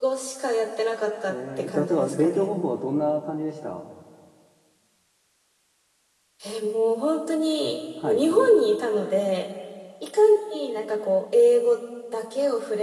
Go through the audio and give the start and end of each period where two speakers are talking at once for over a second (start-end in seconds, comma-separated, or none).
1.3-2.5